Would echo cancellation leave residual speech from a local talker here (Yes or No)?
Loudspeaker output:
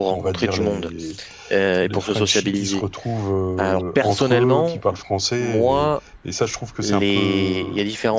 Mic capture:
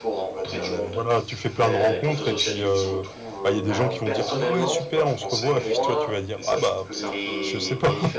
Yes